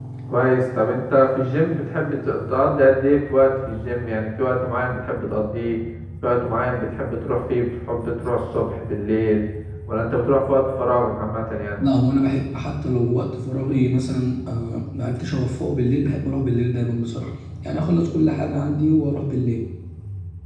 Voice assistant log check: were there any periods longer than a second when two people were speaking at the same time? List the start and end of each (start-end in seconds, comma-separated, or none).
none